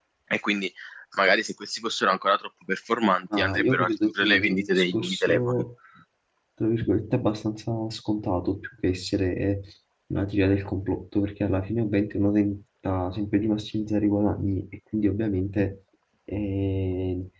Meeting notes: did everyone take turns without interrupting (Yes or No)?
No